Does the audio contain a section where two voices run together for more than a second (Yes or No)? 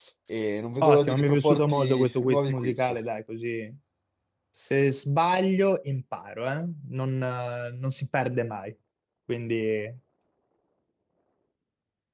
Yes